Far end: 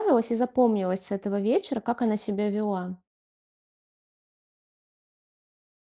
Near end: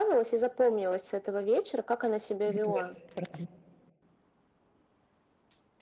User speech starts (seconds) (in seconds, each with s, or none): 2.5 s